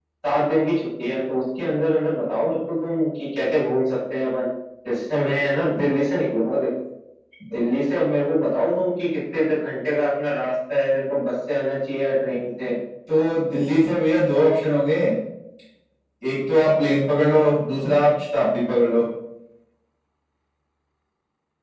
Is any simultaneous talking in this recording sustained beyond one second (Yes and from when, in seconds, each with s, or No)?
No